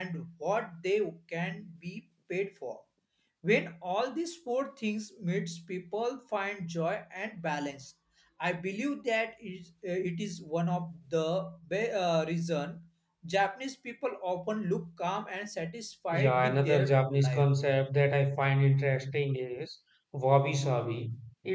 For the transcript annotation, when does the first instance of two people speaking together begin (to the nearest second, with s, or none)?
16 s